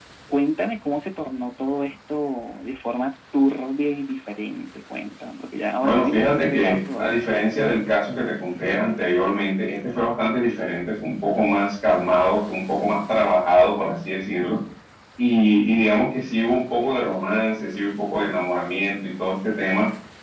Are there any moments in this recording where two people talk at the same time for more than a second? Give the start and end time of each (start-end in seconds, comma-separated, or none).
5.8-7.3